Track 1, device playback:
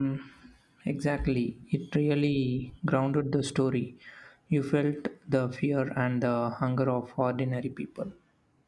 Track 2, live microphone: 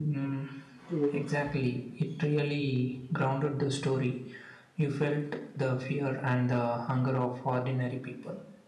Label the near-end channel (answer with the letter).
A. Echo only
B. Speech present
B